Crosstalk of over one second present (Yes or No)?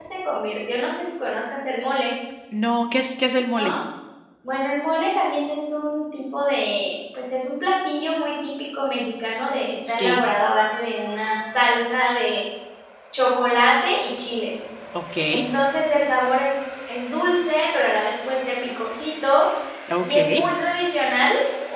No